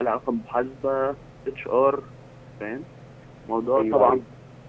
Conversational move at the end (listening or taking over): taking over